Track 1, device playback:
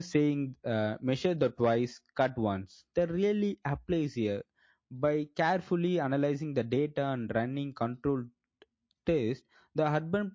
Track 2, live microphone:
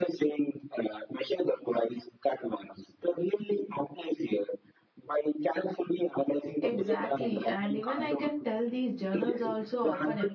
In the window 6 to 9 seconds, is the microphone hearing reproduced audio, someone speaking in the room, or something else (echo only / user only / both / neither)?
both